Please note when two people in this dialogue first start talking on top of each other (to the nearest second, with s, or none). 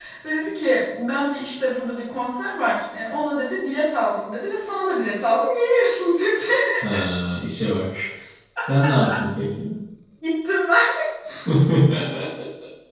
none